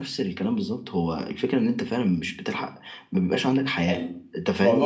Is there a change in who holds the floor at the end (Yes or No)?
Yes